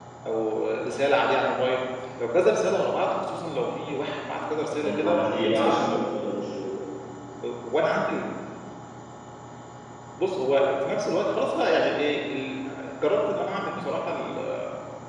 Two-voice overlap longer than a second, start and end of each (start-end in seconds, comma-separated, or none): 4.7-6.0